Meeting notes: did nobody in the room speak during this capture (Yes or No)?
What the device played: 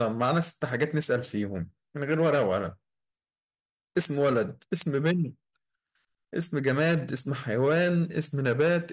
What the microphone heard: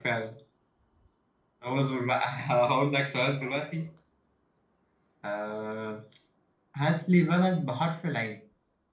No